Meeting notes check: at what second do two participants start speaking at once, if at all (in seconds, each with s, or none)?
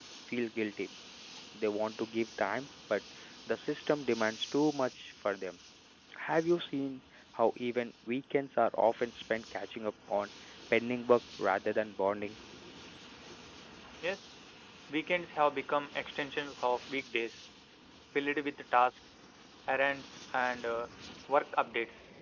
none